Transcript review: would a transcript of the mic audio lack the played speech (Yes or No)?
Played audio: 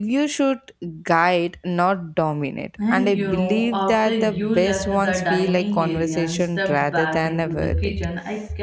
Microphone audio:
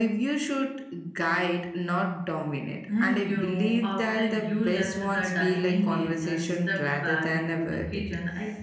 No